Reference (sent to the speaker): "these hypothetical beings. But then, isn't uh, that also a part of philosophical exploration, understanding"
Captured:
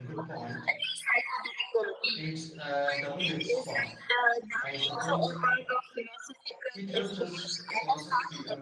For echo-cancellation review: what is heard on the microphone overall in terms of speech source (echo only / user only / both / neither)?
both